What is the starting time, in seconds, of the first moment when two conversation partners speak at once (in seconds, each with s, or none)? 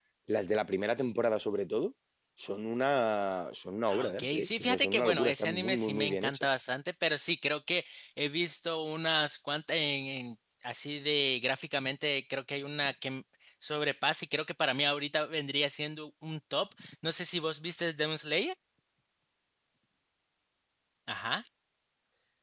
3.9 s